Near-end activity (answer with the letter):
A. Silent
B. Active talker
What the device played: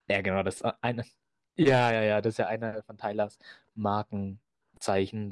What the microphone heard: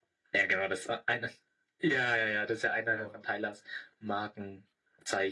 B